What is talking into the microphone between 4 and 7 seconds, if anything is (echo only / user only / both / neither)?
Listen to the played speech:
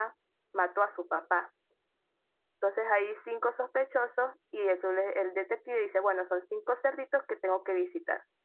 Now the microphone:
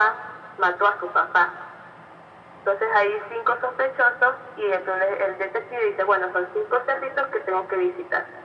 echo only